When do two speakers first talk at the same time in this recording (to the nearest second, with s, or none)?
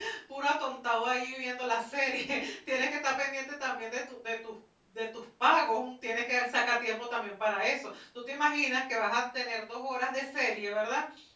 none